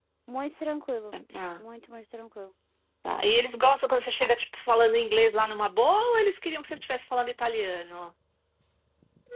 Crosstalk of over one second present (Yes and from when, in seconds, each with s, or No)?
No